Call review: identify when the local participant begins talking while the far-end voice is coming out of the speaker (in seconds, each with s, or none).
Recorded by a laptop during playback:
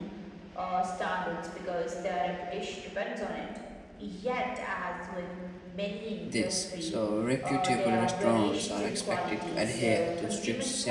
6.3 s